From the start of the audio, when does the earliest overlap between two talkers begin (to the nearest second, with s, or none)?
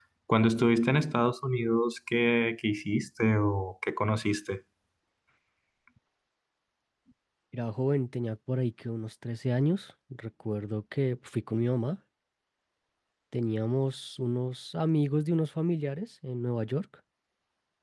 none